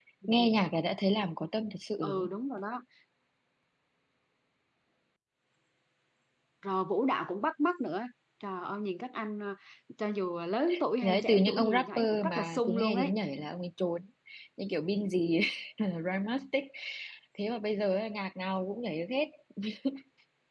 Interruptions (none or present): present